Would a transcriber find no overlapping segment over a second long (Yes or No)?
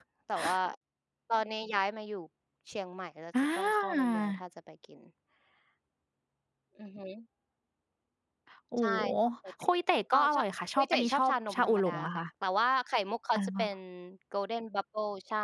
No